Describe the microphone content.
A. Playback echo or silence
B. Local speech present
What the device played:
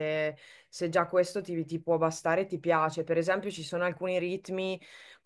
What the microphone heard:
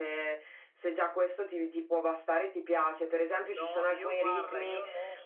B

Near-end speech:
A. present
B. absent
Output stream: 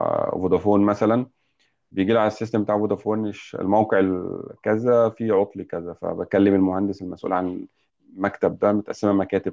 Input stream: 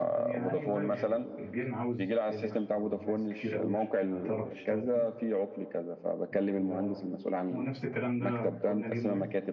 A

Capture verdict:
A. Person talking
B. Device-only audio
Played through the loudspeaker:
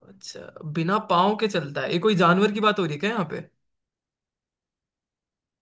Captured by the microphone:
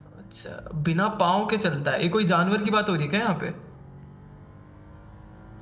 B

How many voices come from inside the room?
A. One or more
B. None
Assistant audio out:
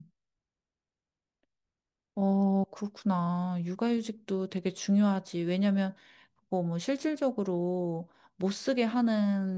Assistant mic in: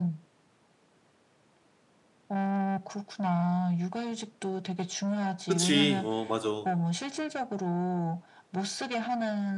A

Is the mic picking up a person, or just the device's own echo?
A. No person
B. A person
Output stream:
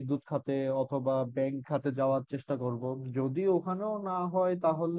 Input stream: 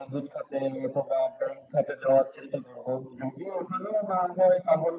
A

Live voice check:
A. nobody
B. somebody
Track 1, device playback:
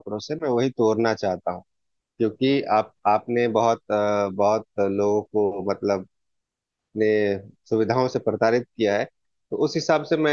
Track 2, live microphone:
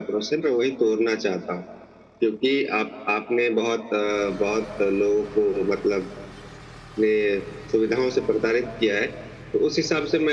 A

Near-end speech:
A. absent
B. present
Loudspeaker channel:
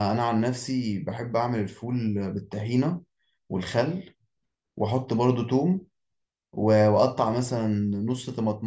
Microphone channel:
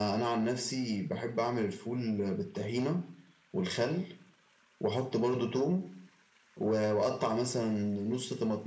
A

